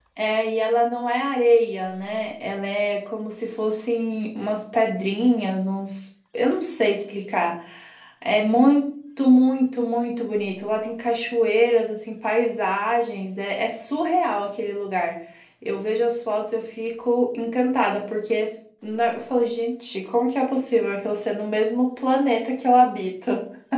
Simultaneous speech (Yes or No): No